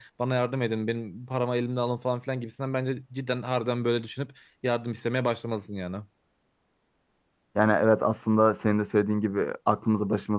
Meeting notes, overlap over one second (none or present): none